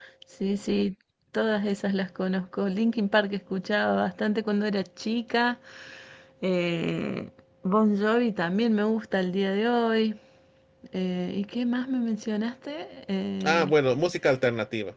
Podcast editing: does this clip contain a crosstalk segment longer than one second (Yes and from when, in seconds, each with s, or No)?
No